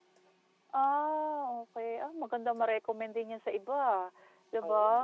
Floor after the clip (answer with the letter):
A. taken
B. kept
B